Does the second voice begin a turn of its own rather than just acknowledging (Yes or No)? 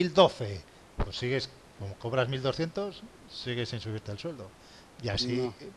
No